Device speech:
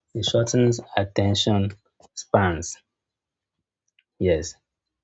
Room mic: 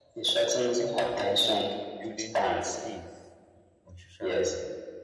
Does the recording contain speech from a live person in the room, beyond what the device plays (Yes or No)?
Yes